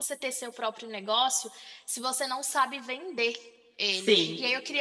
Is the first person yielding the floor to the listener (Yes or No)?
No